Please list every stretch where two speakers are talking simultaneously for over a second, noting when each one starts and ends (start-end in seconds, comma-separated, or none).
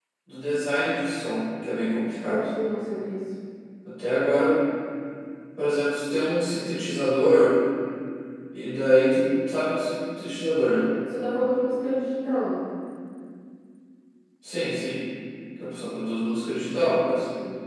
none